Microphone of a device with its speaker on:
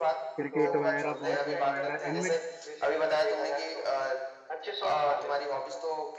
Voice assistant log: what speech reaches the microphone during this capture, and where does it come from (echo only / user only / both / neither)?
both